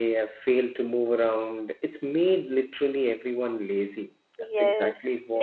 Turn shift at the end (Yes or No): Yes